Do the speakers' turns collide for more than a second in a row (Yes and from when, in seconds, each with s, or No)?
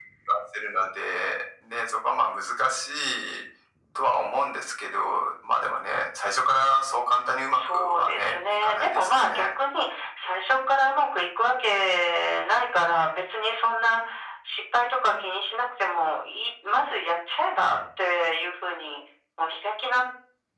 Yes, from 7.5 s